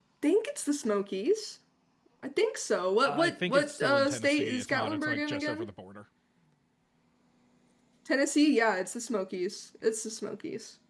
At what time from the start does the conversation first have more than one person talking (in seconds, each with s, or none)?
3.0 s